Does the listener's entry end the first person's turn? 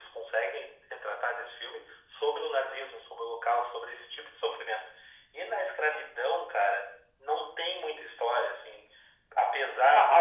Yes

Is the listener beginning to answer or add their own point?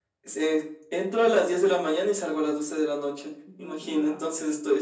No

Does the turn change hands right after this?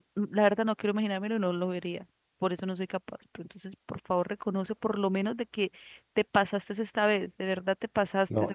Yes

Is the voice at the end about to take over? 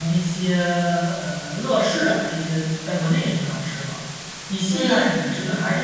No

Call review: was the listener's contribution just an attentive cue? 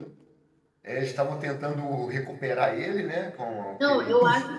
No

